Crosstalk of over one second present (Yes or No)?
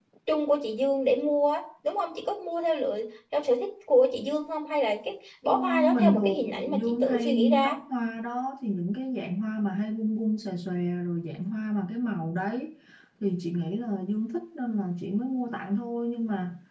Yes